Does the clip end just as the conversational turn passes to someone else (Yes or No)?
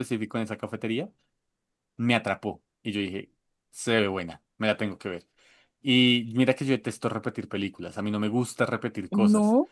No